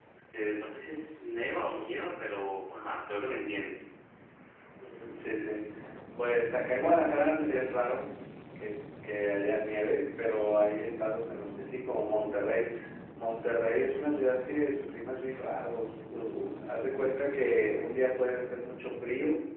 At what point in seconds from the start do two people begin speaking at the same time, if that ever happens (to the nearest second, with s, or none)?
none